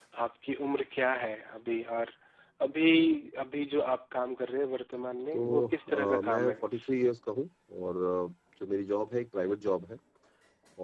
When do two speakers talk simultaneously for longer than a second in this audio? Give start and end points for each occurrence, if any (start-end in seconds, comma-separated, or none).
5.3-6.7